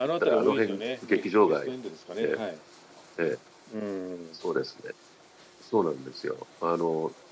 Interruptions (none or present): present